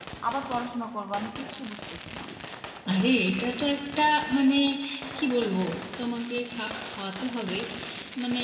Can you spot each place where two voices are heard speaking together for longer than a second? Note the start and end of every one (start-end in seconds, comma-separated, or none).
none